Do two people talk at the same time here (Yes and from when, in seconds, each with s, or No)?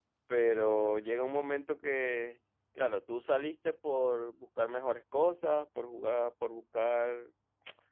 No